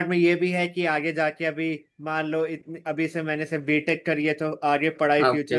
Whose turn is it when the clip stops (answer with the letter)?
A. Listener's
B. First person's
B